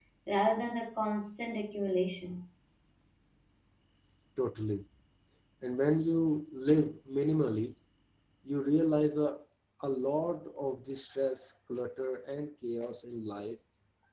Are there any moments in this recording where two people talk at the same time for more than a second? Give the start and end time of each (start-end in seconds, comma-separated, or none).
none